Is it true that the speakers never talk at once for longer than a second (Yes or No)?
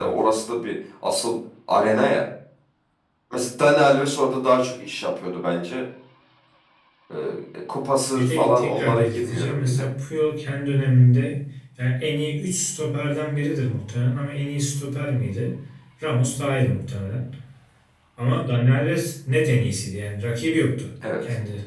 No